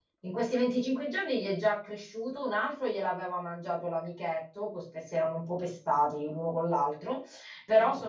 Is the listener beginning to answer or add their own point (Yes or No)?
No